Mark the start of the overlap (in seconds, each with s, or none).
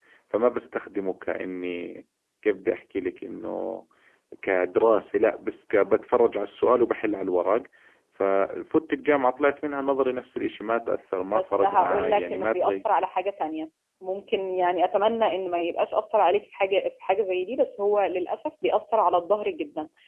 11.3 s